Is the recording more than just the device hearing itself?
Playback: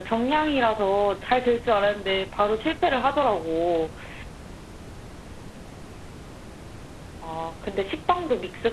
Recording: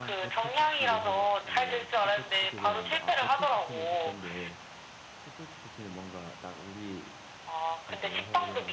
Yes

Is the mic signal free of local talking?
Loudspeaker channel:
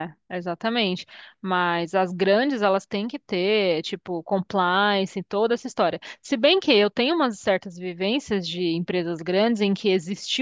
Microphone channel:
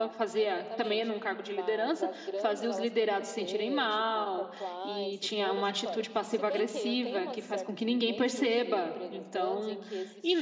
No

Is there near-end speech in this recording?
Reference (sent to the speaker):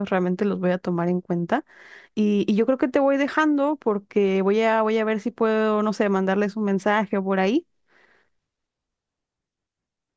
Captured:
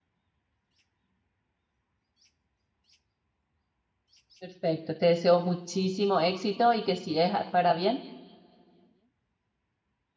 Yes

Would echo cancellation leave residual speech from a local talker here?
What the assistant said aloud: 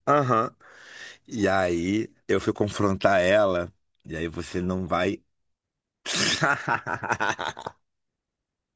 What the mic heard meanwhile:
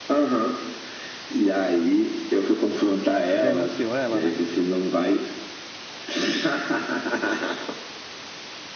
Yes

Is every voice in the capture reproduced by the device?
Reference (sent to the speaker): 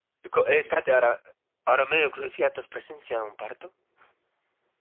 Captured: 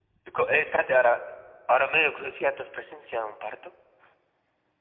Yes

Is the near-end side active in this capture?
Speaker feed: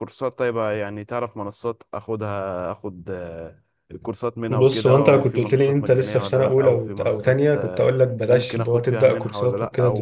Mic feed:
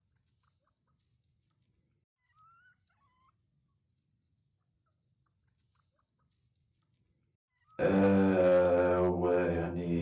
Yes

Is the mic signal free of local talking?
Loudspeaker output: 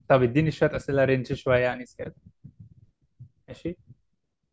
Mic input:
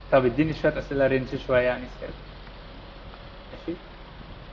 Yes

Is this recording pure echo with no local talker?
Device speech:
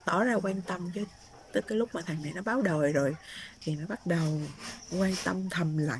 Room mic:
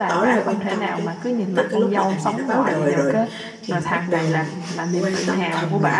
No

